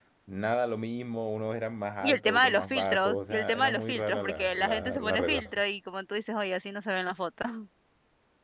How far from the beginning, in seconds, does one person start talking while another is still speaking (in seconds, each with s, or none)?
2.0 s